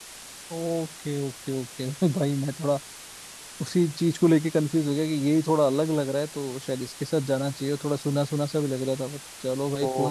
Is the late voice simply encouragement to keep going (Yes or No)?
No